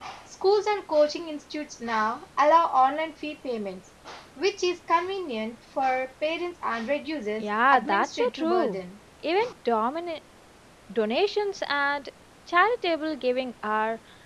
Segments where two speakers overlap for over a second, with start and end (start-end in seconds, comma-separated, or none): 7.4-8.8